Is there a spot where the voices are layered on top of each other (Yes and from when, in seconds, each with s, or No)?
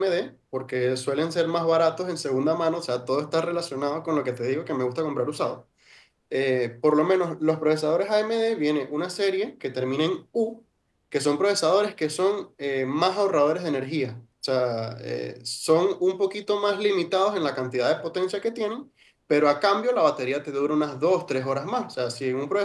No